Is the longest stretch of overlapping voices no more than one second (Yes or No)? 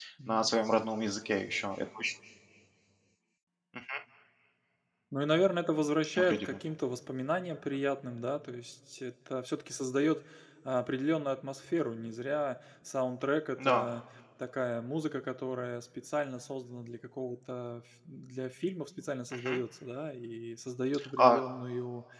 Yes